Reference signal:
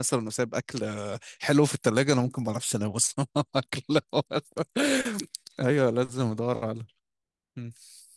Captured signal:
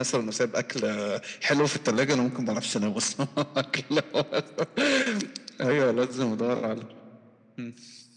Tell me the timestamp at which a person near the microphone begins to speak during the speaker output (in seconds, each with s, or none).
none